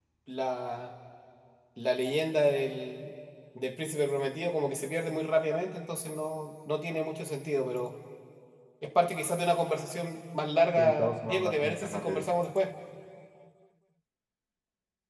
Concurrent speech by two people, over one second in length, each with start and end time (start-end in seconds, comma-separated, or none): 10.8-12.3